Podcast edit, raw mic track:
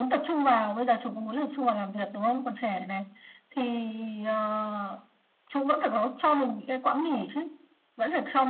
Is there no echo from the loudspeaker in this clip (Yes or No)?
No